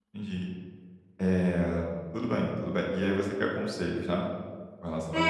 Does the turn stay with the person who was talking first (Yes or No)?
No